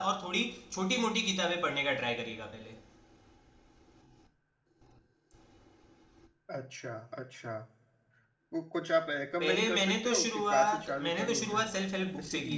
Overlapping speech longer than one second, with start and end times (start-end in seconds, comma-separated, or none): 9.4-11.6